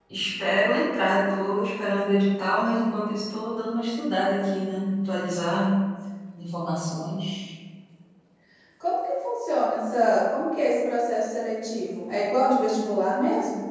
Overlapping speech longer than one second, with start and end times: none

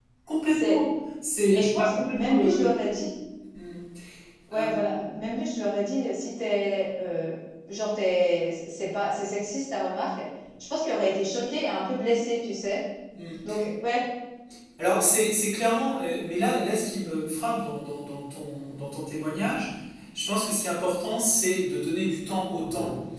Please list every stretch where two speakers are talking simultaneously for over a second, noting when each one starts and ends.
1.5-2.7

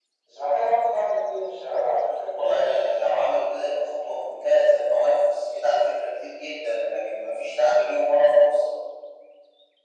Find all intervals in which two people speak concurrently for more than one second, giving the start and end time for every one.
none

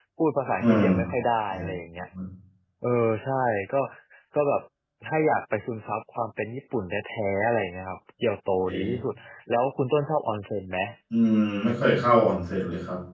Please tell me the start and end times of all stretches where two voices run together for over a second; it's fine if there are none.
none

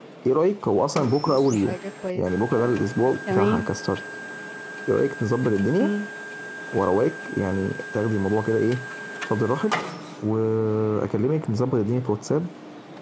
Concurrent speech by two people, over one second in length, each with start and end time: none

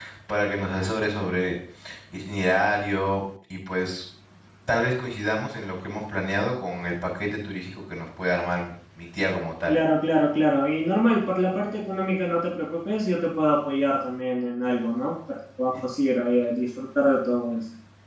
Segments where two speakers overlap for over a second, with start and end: none

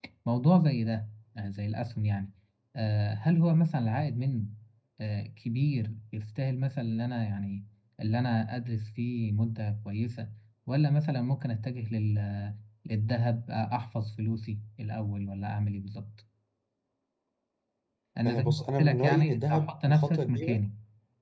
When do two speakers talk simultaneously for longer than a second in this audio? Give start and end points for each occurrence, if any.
18.2-20.6

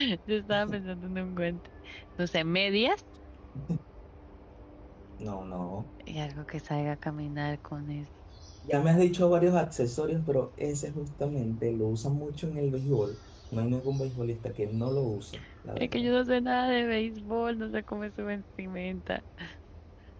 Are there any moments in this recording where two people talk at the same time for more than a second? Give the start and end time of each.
none

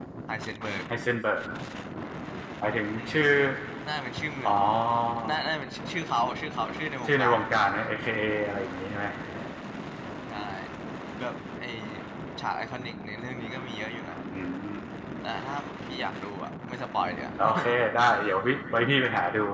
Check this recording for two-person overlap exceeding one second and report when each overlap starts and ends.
none

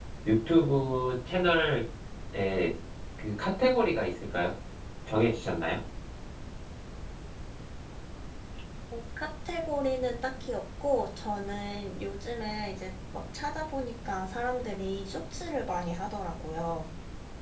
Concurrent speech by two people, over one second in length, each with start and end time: none

